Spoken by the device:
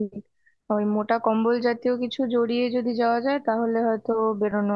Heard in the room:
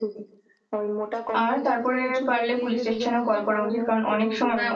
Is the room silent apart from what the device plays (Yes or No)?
No